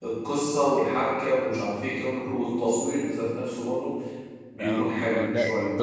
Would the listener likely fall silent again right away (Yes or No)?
No